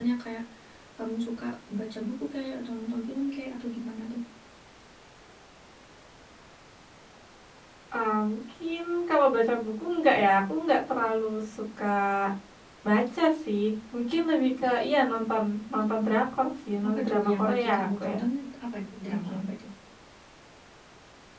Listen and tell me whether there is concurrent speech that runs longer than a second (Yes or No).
Yes